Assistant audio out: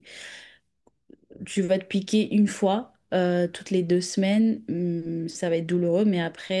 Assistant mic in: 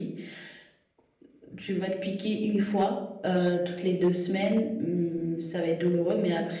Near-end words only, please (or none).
Qu'est-ce que tu en penses?